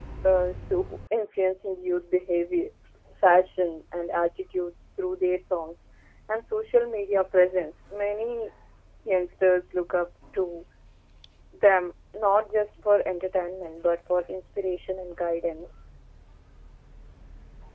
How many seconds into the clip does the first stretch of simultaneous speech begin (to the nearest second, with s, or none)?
none